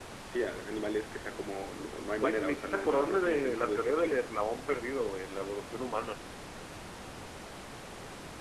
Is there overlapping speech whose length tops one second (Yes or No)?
Yes